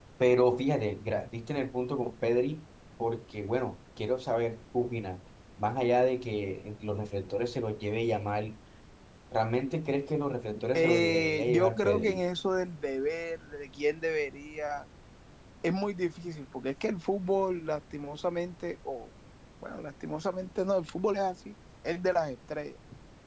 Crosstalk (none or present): present